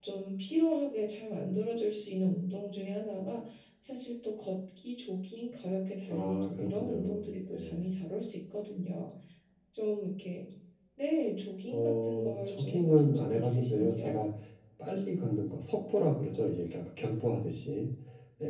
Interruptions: present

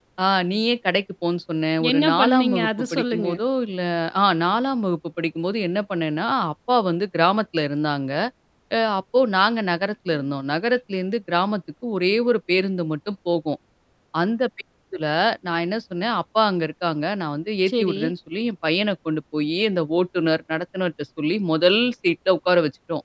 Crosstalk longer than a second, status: present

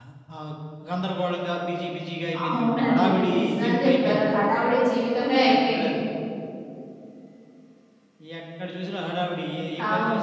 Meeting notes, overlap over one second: present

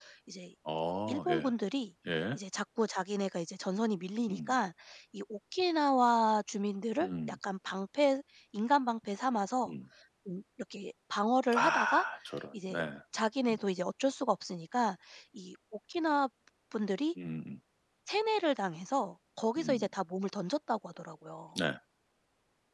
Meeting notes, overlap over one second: none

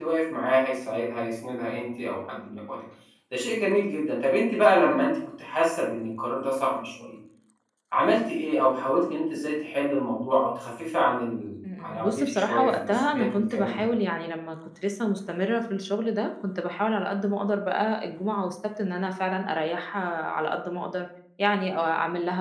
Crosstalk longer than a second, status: present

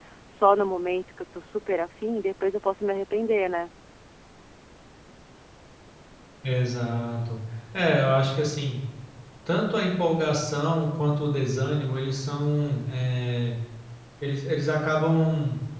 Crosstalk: none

